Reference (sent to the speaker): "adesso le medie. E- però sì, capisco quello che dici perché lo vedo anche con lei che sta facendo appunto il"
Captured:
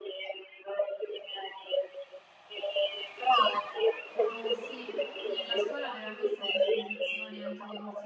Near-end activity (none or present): present